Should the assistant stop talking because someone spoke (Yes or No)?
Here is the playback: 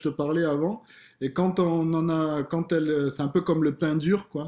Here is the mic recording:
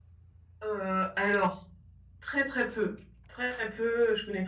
Yes